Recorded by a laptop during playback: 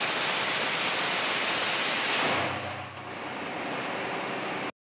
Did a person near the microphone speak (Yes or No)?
No